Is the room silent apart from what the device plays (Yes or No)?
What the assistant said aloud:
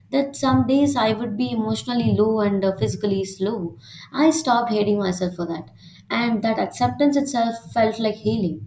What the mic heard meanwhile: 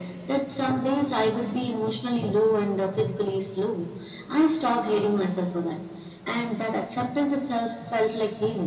Yes